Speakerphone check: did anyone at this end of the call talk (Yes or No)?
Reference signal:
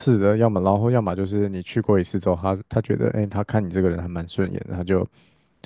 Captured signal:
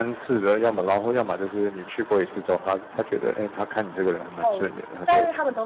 Yes